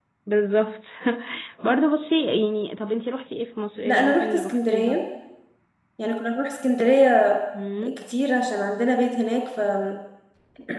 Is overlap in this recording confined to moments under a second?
No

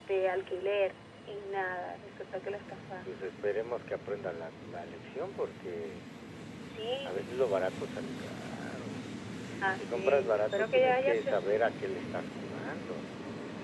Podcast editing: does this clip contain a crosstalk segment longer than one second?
Yes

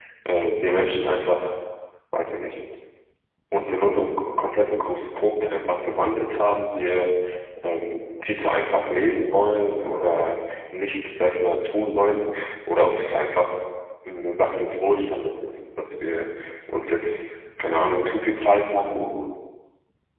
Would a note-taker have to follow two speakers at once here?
No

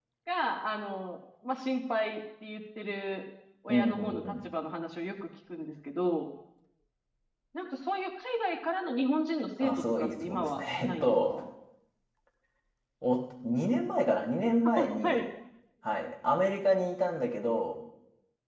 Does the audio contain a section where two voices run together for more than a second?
Yes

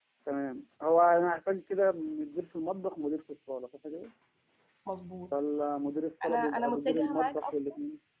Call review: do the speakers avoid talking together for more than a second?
No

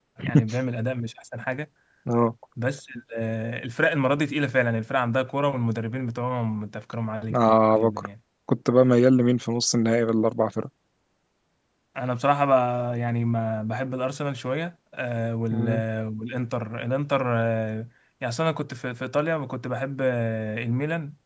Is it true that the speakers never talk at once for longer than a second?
Yes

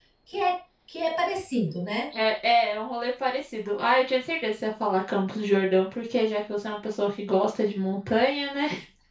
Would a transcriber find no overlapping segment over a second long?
Yes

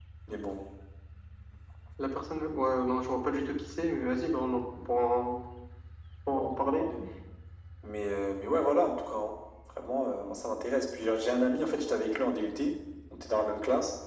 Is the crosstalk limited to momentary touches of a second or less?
Yes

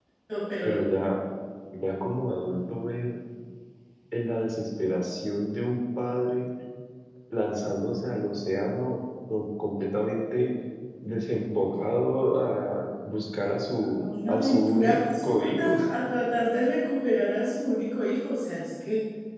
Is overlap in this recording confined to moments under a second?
No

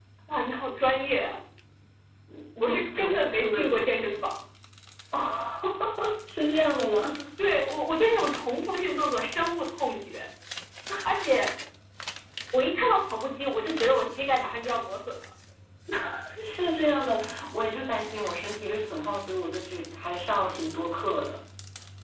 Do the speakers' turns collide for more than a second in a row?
Yes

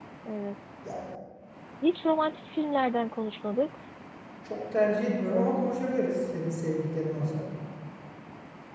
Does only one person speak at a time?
Yes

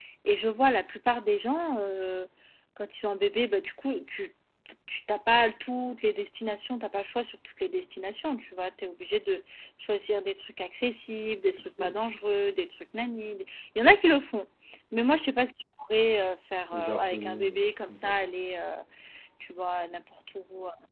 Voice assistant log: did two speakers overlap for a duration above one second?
Yes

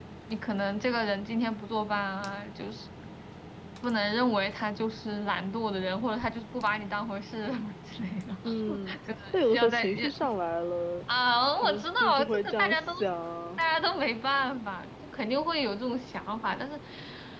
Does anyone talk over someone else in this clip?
Yes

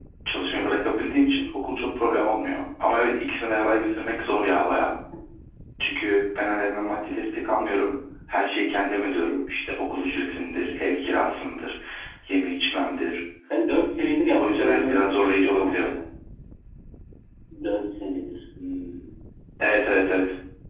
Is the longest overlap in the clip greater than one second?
Yes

